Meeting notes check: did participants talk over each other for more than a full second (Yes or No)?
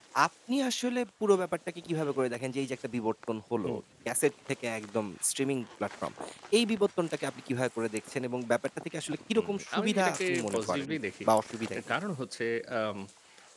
Yes